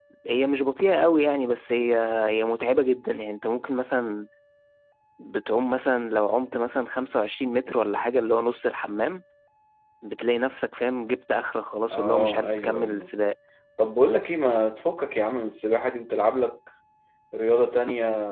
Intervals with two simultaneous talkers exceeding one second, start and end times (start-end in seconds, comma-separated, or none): 11.9-13.1